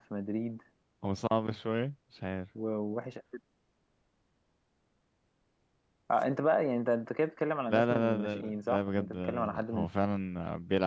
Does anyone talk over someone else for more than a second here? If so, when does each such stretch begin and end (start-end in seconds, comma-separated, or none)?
7.7-9.9